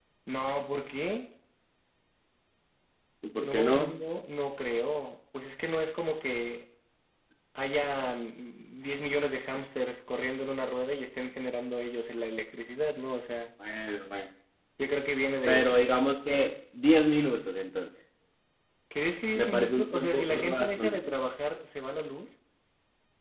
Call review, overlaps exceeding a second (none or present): present